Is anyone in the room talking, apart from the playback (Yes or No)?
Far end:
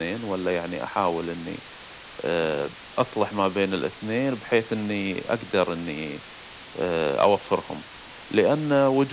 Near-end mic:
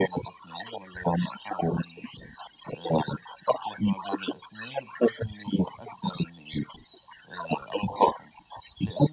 No